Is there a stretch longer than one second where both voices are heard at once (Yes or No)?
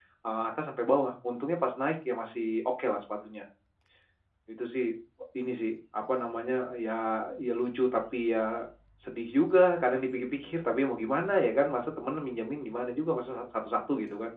No